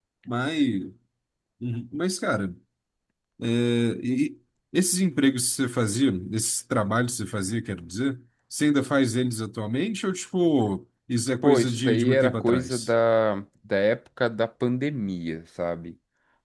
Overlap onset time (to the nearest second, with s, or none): 11 s